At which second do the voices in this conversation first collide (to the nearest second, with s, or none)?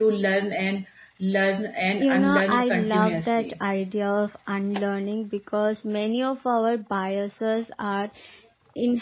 2 s